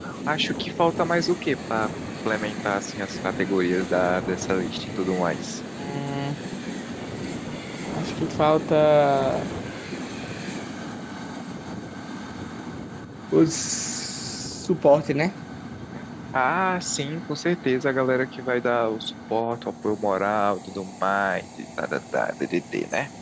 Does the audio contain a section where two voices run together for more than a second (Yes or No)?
No